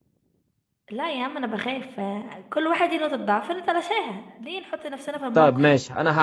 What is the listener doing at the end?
taking over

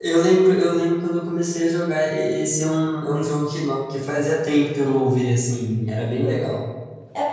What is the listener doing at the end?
taking over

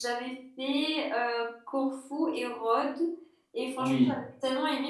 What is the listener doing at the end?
listening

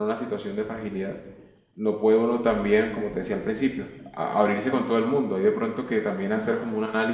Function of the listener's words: listening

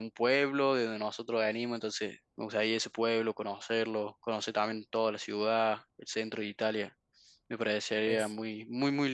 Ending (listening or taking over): listening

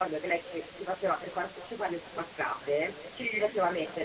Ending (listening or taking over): listening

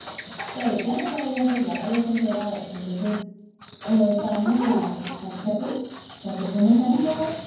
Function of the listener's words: listening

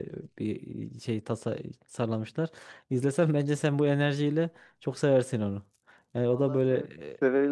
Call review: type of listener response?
taking over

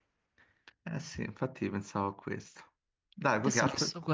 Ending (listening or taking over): taking over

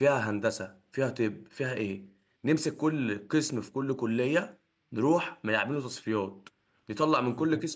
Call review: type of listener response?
listening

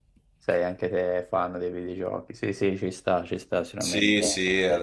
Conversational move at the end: taking over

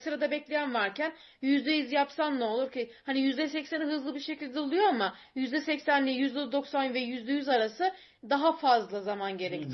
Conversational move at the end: taking over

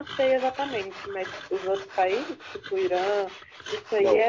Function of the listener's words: taking over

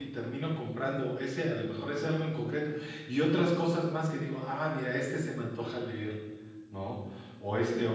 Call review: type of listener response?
listening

